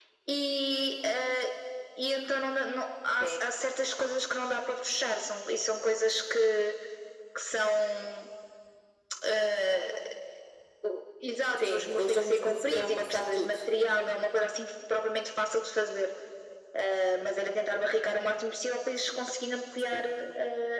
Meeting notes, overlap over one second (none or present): present